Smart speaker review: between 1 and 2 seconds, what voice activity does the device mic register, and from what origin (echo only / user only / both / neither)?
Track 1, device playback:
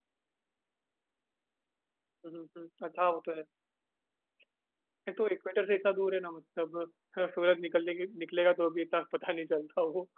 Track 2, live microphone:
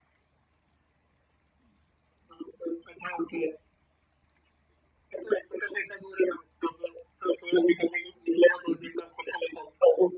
neither